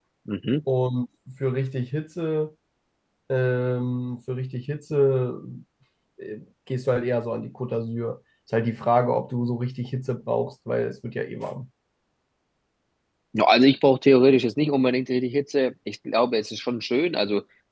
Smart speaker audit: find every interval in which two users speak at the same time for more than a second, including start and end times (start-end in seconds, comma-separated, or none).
none